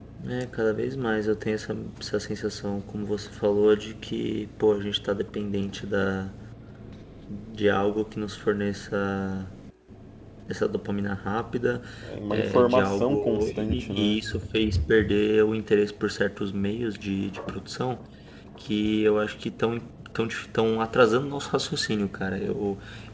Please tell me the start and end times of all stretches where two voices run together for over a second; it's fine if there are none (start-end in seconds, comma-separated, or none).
12.3-14.2